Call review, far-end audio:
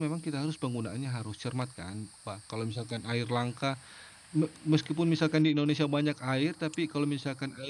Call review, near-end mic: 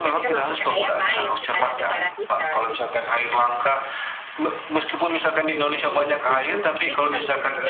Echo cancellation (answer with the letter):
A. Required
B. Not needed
A